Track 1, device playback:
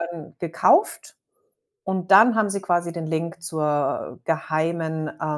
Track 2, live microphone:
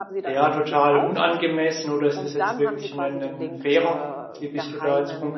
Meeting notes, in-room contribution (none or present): present